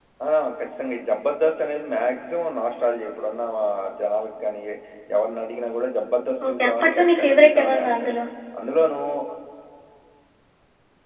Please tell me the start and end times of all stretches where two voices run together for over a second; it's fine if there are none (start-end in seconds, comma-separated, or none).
6.5-8.1